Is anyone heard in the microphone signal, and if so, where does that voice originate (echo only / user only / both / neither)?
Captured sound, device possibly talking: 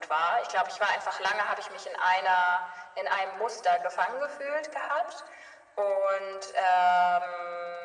echo only